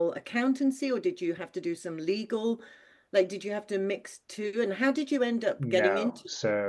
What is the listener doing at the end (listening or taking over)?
taking over